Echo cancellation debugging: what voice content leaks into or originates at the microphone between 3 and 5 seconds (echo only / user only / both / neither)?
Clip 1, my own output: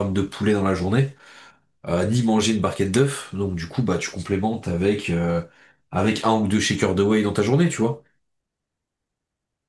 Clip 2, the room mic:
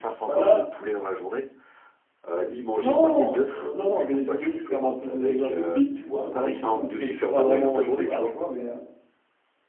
both